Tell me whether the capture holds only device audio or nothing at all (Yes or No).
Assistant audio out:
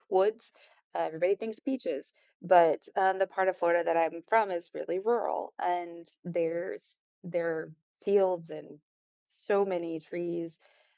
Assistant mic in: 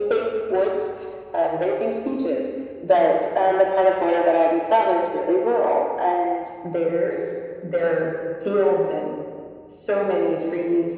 Yes